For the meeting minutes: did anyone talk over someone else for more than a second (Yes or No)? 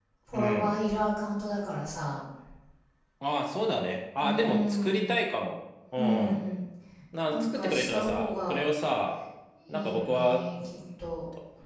Yes